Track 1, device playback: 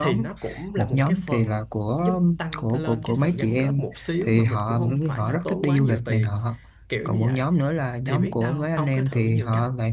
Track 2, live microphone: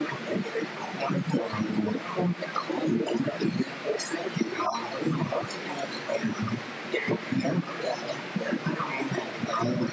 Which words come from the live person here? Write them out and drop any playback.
none

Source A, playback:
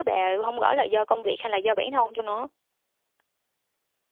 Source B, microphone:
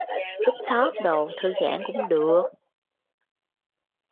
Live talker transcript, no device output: rooftop đồ thư giãn cũng được

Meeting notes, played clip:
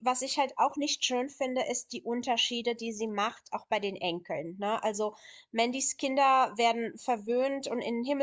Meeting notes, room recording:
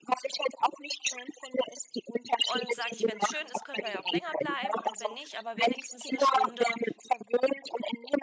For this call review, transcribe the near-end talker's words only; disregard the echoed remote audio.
Und sage ich, wenn es schön ist, können wir ja auch länger bleiben und wenn nicht, aber wenigstens eine Stunde,

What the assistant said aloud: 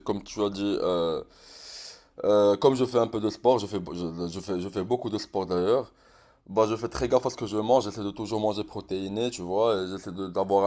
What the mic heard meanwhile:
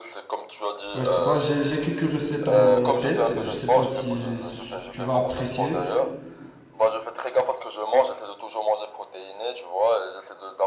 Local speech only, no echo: Ouais, je sais pas, j'ai, j'ai quelques recettes en tête, je sais pas si, si tu tu vas apprécier.

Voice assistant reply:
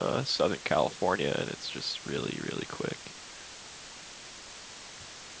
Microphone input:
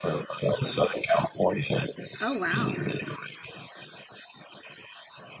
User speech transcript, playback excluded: Oh wow.

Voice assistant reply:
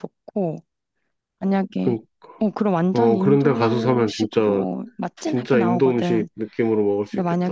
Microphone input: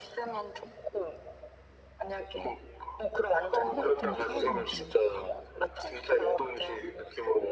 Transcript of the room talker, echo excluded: 프라이팬에 구워서 먹으면

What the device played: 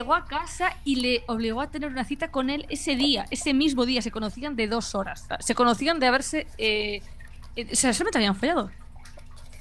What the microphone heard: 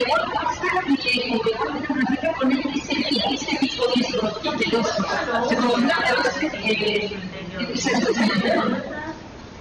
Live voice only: Y es que igual ella lo odia a Steve en su interior, como un ida y vuelta,

